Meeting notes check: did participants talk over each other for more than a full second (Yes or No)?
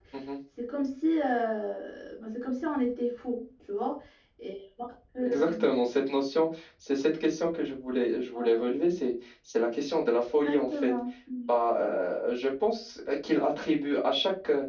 No